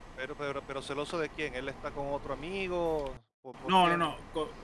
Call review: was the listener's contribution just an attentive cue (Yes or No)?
No